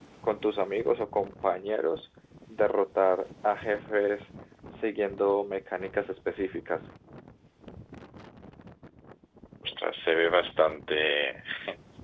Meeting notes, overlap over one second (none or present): none